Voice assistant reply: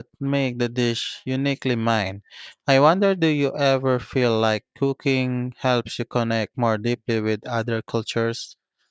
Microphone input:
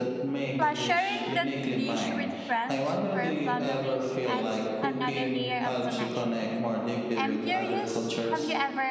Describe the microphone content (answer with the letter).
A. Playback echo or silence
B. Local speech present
B